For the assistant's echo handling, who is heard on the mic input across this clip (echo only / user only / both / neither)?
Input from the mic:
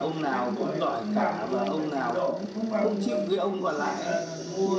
both